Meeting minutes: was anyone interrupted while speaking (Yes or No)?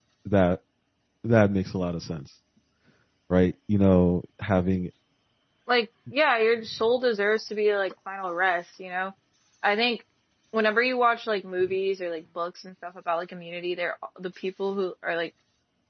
No